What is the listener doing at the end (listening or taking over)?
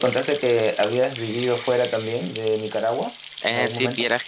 taking over